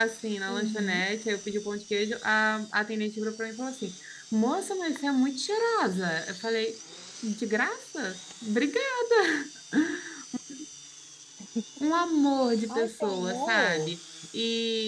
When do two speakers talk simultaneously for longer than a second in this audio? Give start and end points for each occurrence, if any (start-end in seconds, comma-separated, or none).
12.7-13.9